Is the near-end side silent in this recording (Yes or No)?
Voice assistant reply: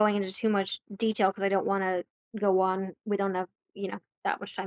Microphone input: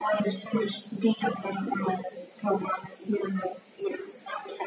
Yes